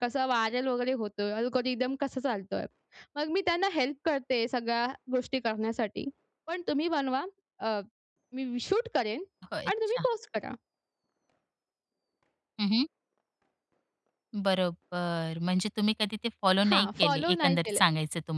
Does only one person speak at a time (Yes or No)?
No